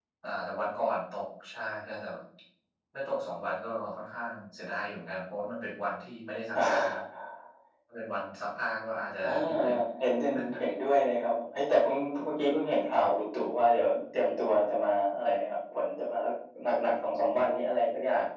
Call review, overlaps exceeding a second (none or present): none